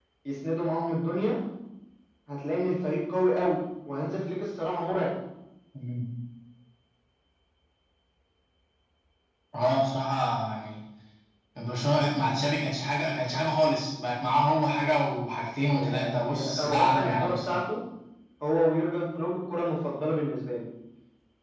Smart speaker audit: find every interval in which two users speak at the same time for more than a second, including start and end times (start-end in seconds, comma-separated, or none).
15.7-17.6